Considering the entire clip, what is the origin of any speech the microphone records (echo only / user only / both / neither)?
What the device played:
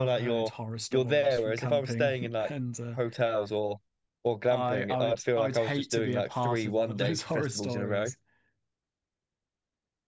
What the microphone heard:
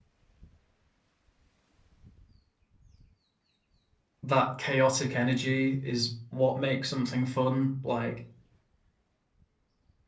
user only